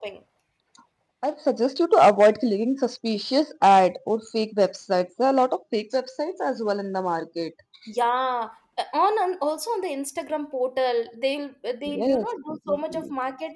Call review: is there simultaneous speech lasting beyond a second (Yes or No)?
Yes